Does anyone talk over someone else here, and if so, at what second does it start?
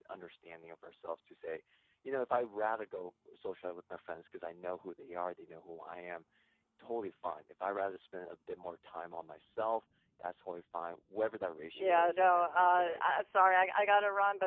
12 s

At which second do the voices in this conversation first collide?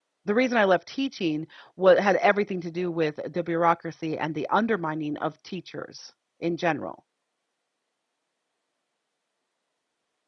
none

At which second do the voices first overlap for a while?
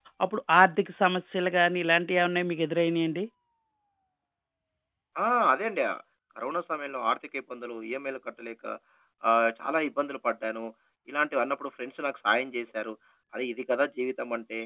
none

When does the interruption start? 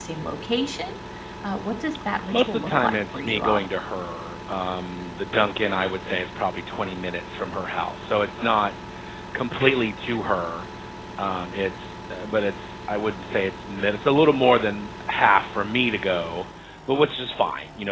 2 s

